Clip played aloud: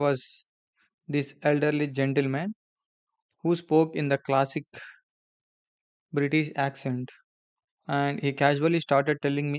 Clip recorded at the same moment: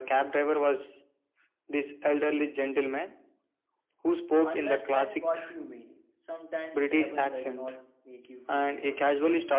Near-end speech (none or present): present